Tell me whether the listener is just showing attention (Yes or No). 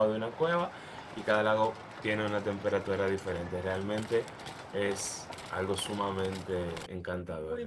No